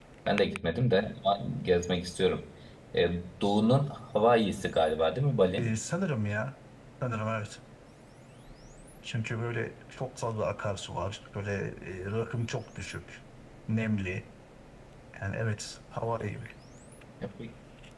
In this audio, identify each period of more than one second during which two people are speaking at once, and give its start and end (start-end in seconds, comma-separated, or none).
none